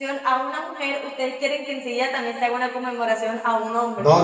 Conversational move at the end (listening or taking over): taking over